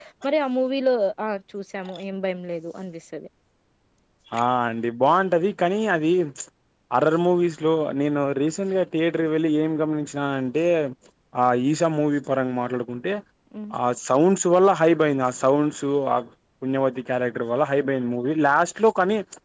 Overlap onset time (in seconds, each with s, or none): none